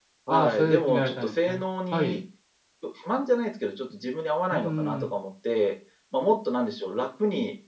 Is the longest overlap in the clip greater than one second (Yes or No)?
Yes